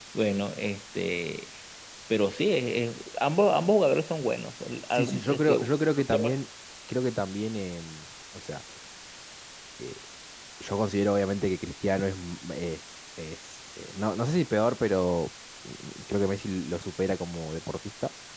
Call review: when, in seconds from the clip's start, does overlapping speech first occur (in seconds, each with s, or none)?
4.9 s